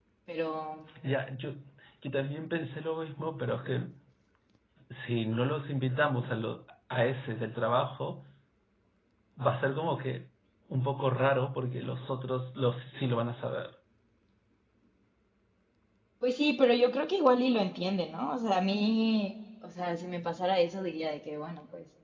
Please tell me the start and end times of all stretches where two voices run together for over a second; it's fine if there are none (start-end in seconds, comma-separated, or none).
none